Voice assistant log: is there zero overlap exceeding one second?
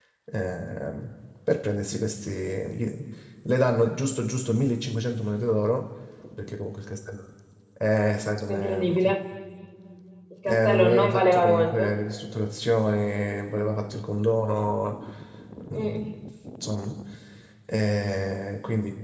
No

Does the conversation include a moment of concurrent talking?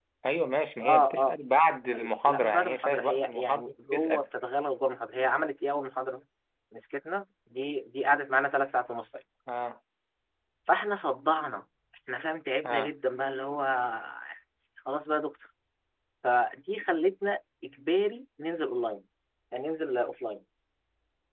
Yes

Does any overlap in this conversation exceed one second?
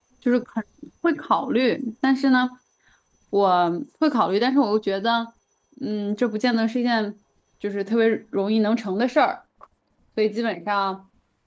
No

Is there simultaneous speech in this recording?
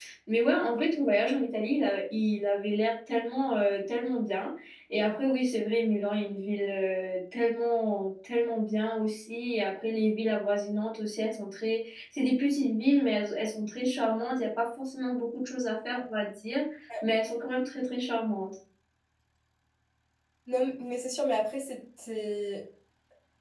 No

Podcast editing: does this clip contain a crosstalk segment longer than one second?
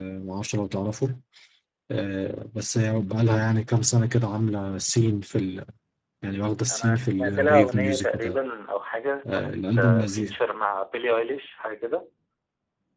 Yes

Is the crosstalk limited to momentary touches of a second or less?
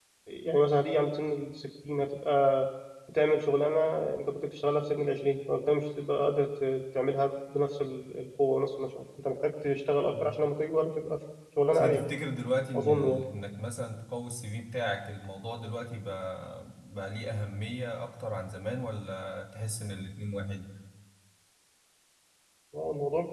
Yes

